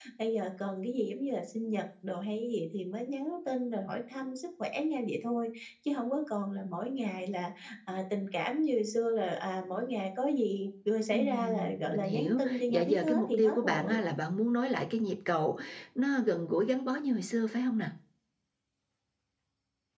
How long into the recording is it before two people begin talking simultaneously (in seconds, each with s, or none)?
11.1 s